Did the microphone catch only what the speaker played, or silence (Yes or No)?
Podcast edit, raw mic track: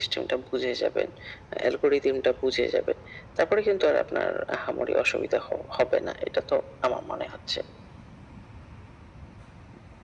Yes